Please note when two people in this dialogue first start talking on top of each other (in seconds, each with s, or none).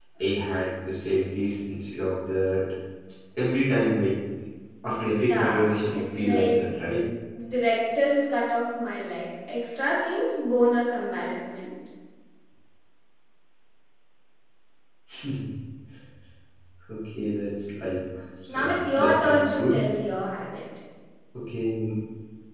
5.3 s